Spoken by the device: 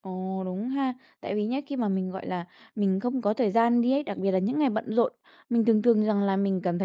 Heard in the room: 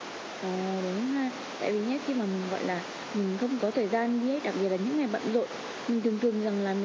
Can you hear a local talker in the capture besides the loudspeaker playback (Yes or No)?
No